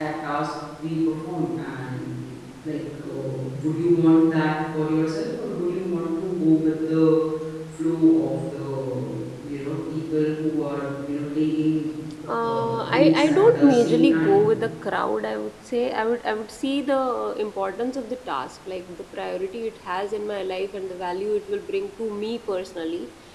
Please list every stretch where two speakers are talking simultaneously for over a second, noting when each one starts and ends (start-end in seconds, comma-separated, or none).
12.4-14.5